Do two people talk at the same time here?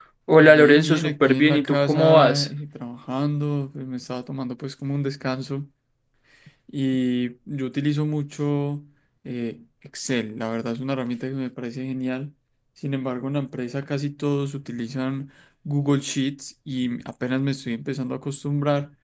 Yes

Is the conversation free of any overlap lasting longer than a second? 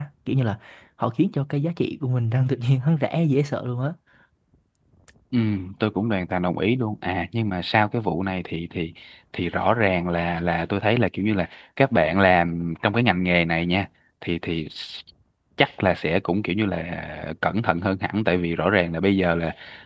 Yes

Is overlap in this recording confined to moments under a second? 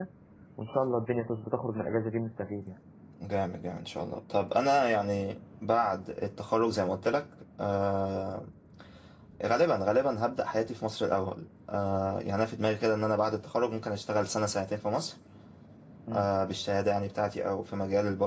Yes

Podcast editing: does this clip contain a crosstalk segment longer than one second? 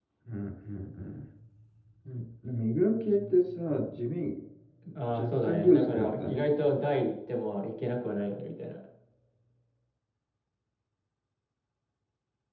Yes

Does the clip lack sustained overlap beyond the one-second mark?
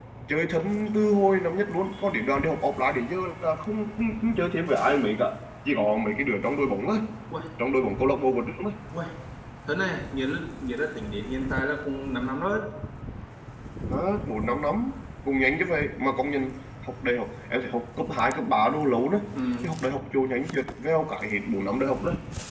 Yes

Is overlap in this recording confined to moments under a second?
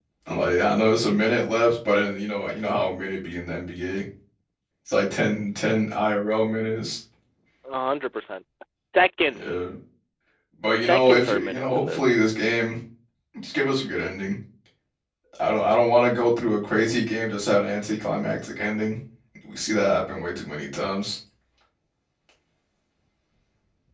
No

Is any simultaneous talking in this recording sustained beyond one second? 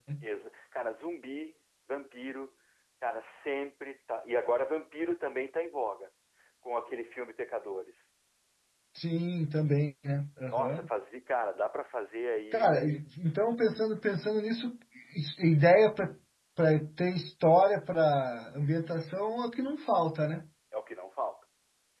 No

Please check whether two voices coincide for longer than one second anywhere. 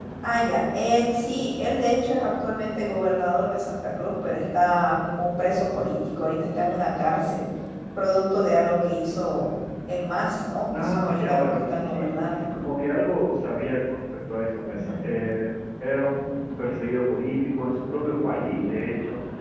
Yes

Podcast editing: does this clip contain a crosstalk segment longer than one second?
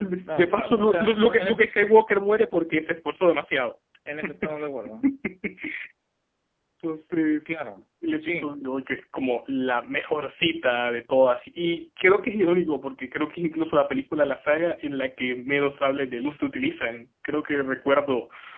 Yes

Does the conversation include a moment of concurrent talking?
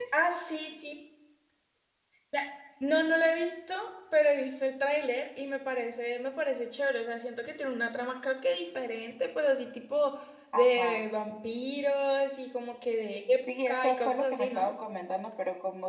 Yes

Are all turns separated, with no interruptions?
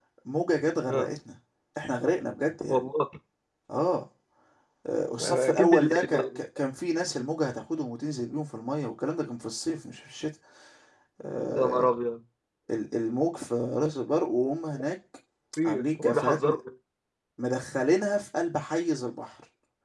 No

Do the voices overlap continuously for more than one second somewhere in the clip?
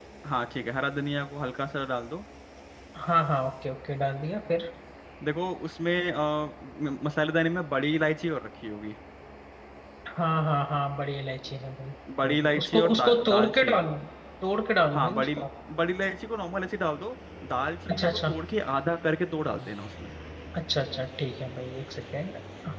Yes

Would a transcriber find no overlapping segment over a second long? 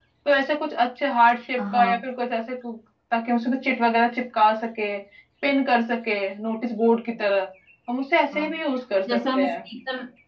Yes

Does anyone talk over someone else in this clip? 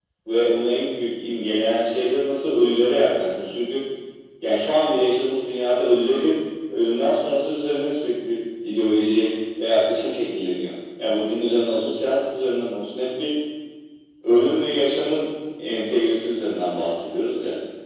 No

